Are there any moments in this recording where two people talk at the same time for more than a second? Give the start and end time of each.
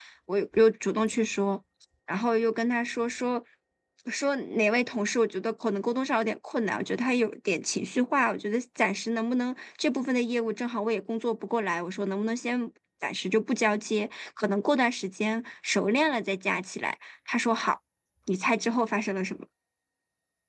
none

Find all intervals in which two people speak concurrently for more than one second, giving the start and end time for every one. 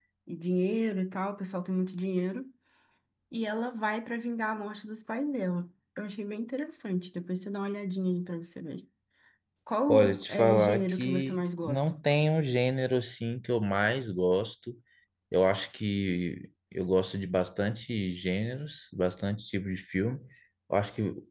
9.9-11.8

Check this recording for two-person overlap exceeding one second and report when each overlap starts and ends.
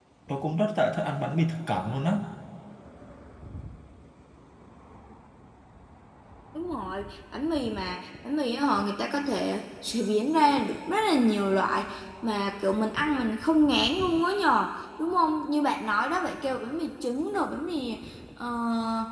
none

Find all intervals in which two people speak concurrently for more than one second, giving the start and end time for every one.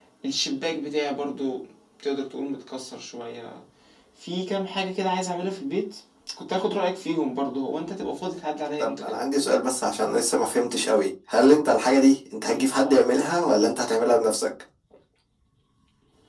none

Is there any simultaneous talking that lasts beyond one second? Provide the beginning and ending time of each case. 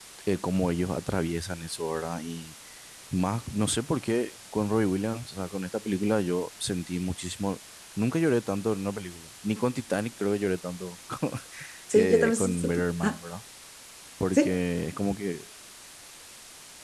11.9-13.2

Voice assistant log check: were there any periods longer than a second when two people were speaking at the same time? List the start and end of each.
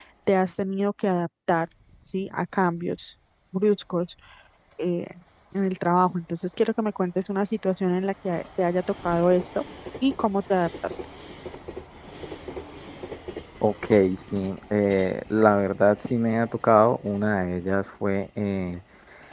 none

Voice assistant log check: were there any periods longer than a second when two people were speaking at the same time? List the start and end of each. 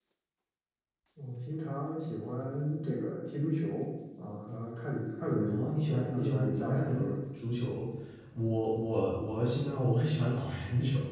5.4-7.1

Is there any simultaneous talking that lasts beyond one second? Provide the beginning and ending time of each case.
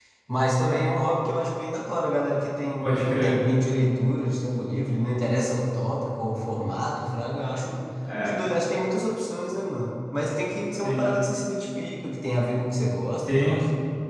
none

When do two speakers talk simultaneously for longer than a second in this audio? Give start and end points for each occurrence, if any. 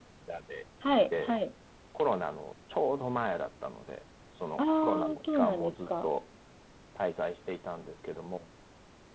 4.6-6.1

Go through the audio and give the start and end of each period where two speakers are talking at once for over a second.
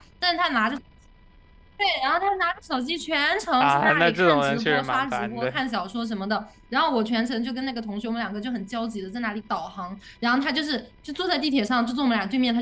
3.6-5.6

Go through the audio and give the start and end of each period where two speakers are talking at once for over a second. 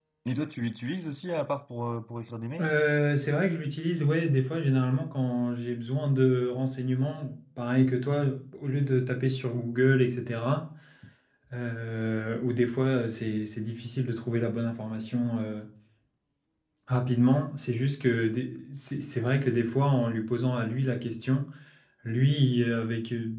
none

